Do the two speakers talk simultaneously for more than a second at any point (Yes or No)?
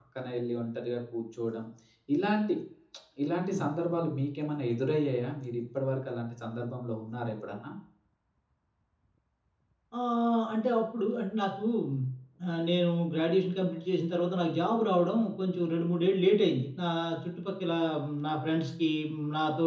No